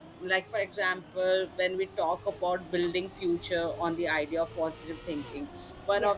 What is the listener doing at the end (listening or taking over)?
listening